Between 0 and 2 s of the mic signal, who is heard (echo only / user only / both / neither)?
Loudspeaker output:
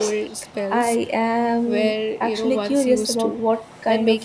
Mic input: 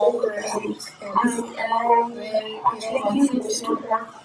echo only